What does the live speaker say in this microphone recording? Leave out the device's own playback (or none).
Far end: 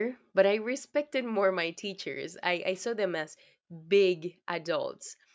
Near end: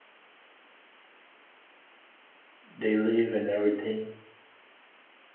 they live and everything?